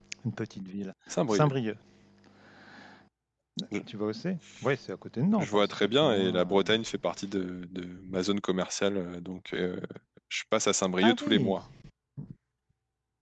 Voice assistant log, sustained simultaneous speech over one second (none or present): present